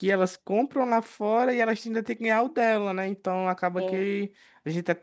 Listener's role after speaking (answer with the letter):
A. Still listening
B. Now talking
A